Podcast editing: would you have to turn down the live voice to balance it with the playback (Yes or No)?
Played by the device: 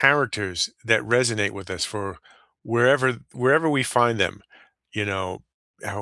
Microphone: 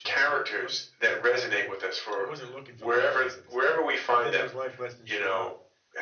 No